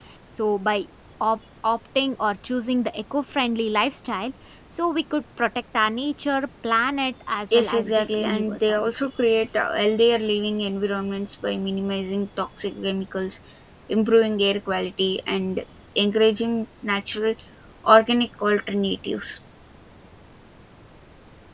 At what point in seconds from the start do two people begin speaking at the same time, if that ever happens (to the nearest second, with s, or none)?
8 s